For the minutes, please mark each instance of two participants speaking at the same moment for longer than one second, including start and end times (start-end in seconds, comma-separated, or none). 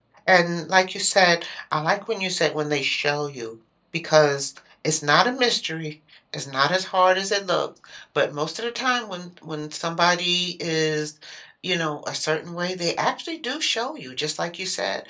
none